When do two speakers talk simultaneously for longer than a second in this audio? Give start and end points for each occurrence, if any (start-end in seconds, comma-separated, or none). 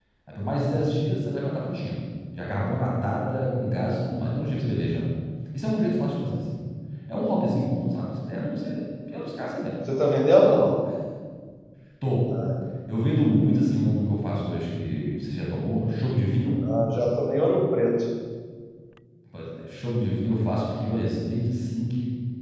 none